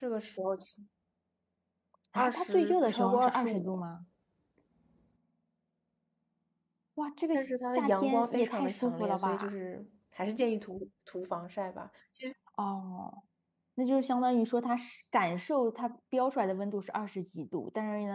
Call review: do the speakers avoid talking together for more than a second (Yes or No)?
No